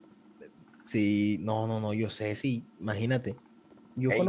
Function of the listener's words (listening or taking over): listening